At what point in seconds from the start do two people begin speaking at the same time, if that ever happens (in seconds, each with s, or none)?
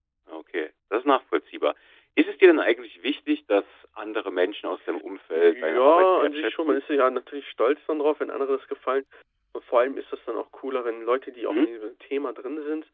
5.3 s